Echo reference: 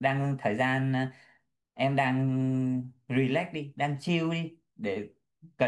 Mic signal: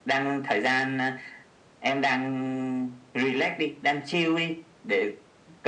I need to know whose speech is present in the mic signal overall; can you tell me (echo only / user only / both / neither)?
echo only